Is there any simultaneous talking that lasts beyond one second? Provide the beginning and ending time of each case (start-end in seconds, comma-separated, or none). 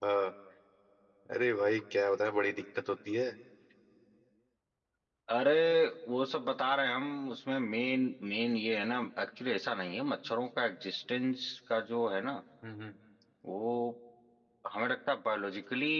none